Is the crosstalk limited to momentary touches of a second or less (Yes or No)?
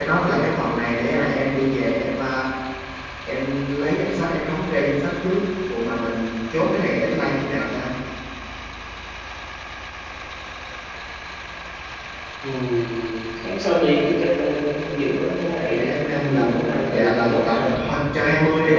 No